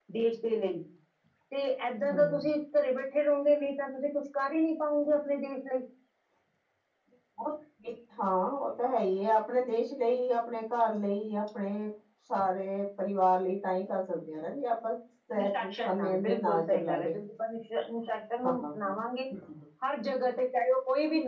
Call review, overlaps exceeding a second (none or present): present